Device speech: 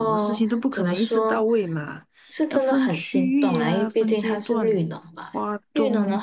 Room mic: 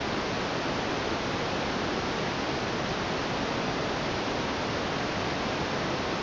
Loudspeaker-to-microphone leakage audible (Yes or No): No